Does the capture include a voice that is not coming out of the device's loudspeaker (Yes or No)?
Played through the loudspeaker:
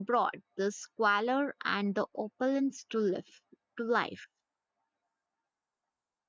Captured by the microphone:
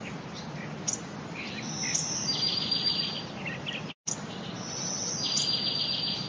No